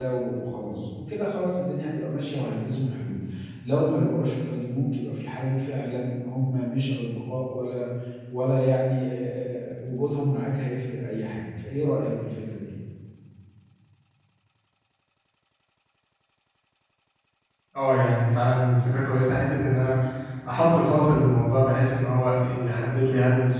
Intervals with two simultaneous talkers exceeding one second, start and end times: none

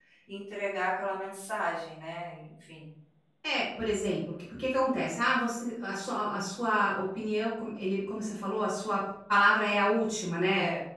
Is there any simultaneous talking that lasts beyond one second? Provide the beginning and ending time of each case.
none

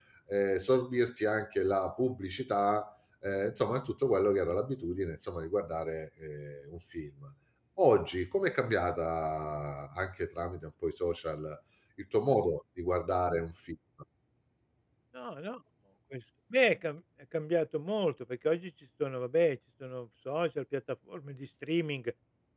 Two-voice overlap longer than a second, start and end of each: none

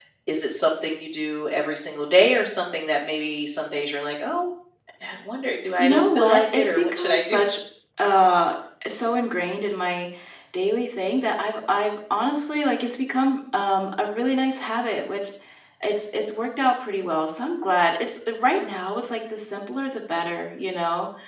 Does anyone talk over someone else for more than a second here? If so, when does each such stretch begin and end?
5.8-7.4

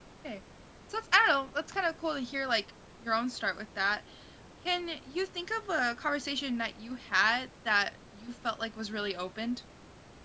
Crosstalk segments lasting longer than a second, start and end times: none

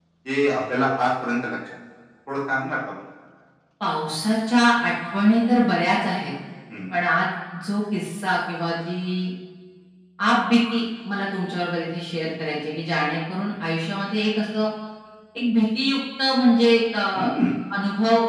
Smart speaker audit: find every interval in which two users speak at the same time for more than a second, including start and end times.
none

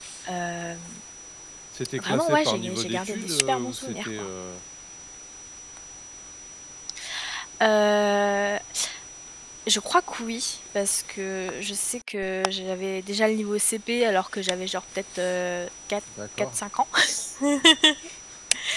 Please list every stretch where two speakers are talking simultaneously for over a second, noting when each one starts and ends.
2.0-4.3

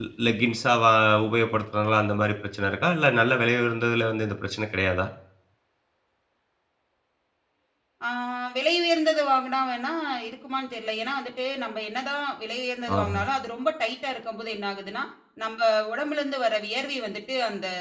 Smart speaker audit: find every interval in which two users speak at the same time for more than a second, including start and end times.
none

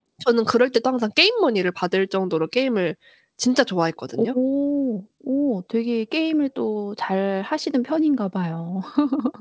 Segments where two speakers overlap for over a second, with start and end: none

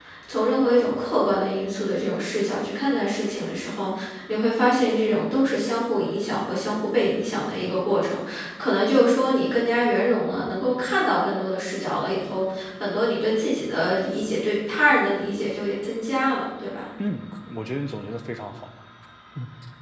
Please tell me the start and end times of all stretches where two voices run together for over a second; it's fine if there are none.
none

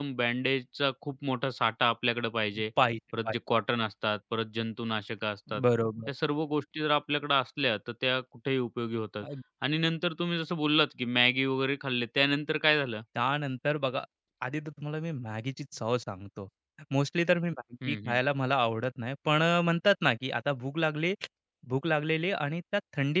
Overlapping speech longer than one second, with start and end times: none

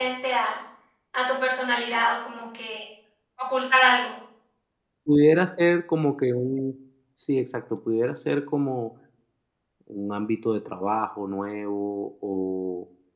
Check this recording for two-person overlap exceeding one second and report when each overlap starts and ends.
none

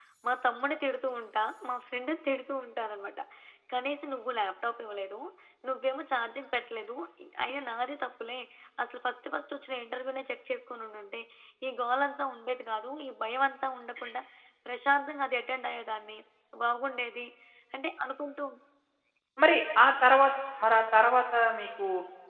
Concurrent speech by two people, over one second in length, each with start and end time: none

